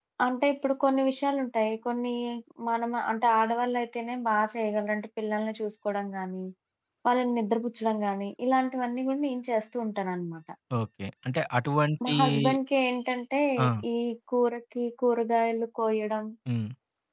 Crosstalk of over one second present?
No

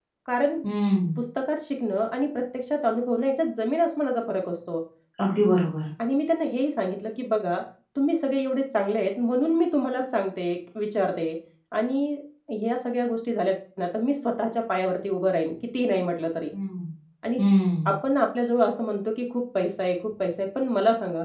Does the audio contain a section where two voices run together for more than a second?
No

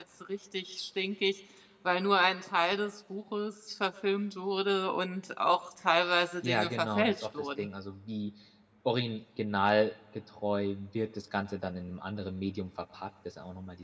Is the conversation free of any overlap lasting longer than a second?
No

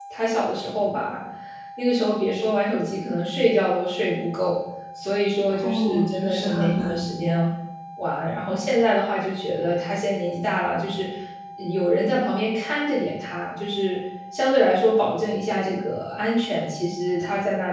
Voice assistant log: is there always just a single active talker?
No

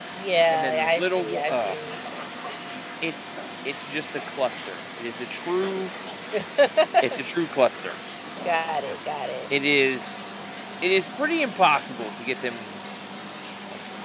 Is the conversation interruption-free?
No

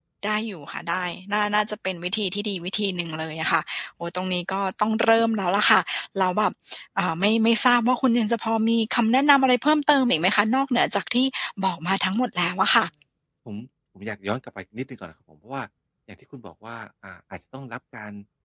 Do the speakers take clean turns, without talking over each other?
Yes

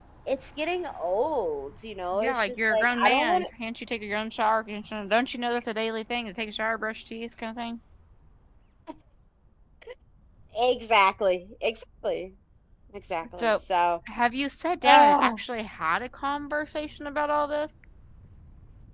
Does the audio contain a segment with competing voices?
Yes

